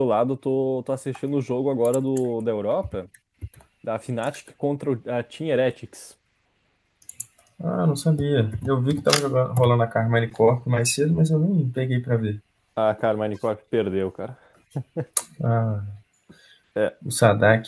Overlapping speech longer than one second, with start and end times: none

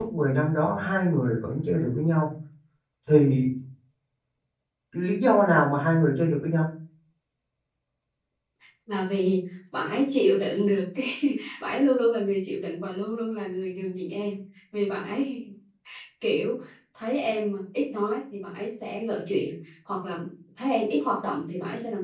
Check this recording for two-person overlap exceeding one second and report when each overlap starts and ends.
none

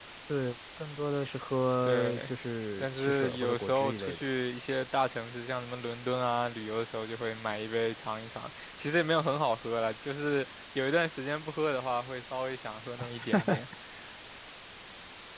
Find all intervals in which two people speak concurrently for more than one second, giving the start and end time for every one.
2.8-4.2

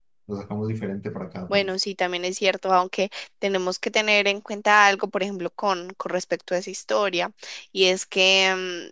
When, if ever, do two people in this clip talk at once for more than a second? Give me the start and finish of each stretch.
none

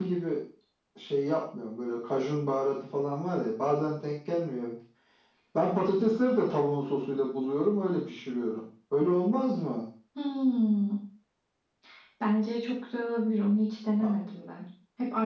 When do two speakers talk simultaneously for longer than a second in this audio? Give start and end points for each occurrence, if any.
none

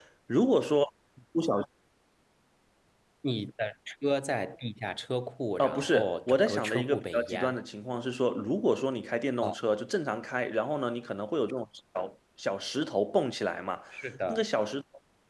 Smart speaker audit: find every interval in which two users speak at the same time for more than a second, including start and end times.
5.6-7.6

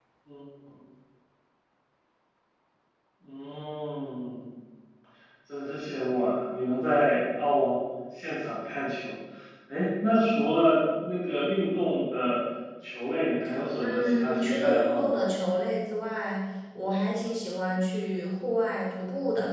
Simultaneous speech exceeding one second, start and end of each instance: 13.8-15.1

